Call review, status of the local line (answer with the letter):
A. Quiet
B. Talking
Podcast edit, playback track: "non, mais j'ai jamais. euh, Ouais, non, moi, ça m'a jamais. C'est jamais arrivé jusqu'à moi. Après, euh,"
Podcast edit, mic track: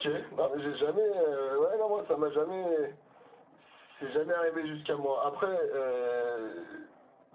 A